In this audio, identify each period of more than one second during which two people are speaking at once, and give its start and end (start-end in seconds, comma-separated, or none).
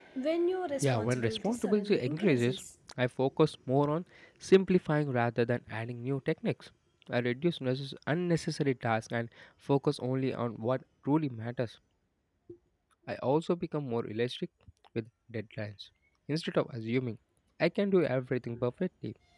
0.8-2.6